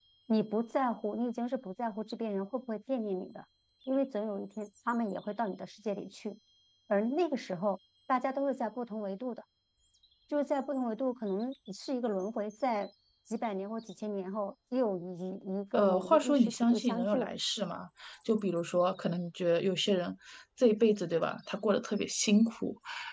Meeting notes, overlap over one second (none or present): present